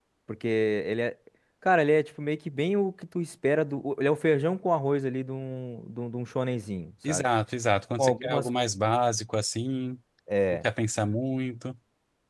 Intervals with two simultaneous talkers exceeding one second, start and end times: none

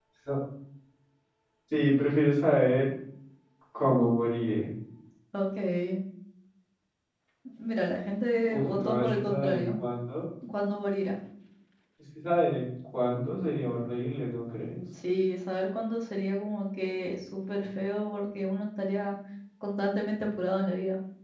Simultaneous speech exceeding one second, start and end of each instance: 8.5-9.8

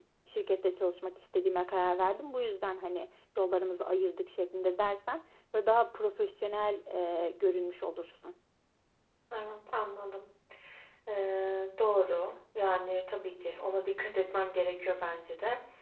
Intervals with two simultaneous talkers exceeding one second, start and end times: none

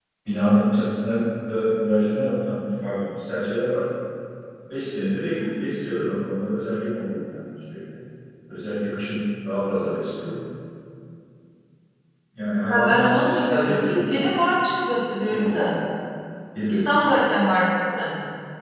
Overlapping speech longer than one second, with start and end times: 12.7-14.3

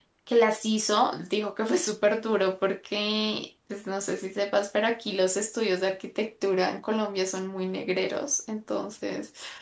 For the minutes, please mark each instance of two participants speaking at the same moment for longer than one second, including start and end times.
none

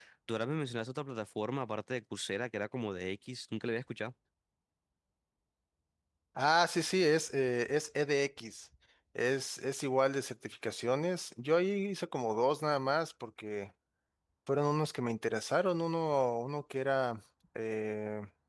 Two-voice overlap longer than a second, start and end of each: none

